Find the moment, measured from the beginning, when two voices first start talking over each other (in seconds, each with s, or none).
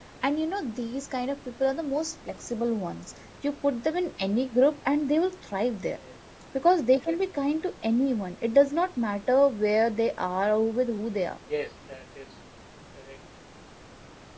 none